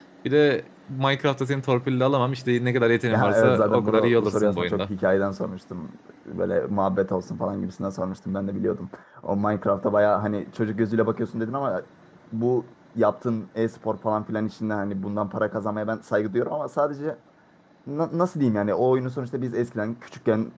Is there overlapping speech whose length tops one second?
Yes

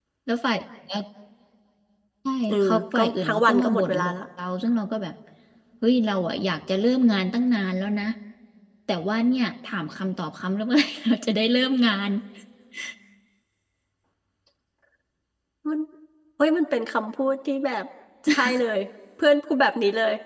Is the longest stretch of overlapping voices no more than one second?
No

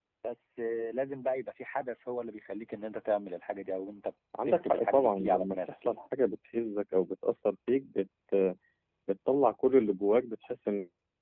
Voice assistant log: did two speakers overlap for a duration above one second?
Yes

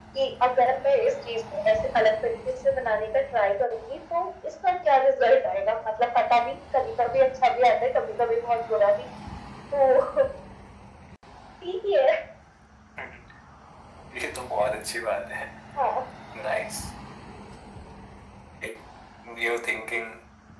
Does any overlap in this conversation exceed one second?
No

